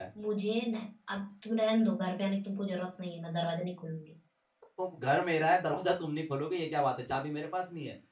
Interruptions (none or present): none